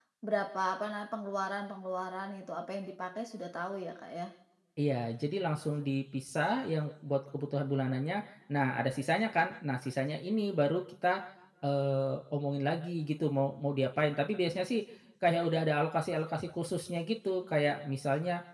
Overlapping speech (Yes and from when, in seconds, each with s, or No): No